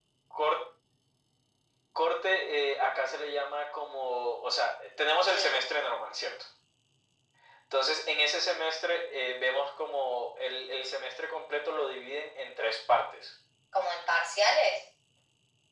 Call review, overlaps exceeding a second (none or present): none